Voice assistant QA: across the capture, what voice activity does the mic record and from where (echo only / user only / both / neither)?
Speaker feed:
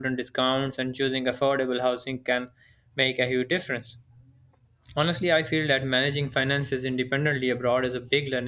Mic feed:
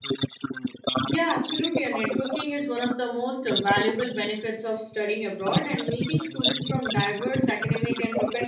both